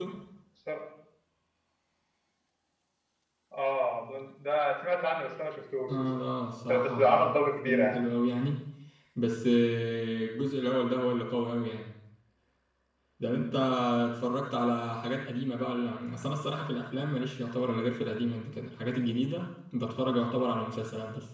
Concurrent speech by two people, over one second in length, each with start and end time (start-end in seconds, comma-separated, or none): 6.7-8.0